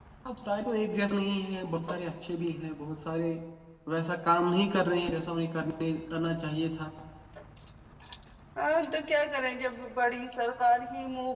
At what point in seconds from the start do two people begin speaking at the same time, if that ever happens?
none

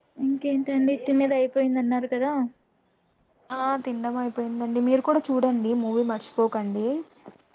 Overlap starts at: none

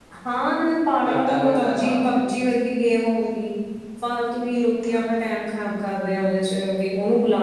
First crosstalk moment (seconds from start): 1.1 s

